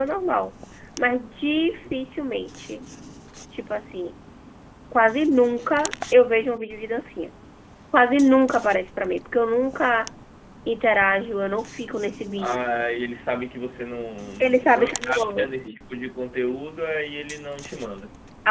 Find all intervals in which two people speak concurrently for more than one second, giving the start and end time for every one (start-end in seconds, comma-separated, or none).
14.4-15.8